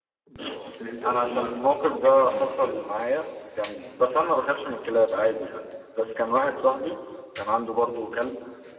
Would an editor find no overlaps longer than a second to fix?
No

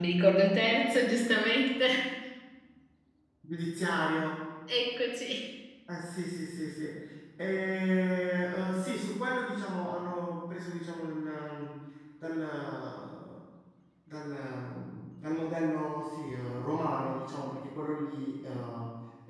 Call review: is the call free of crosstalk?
Yes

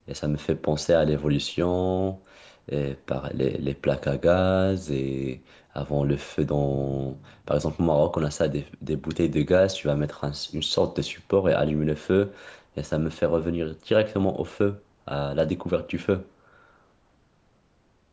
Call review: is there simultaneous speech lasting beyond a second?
No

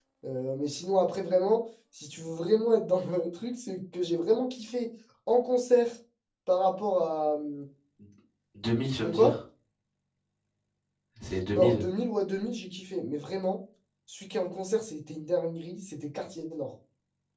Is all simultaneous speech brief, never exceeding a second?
Yes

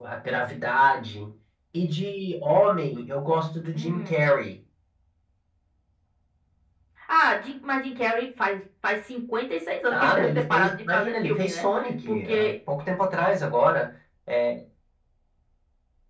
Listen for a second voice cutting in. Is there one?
Yes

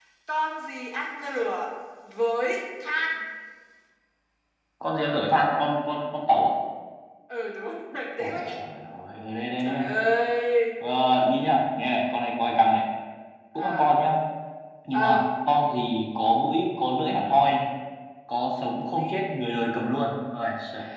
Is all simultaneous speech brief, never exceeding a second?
Yes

